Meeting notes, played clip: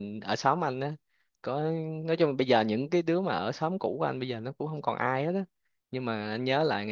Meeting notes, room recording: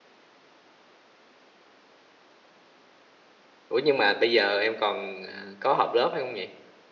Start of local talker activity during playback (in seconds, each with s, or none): 3.7 s